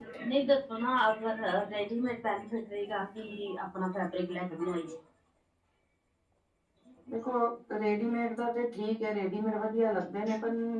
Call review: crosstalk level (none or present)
none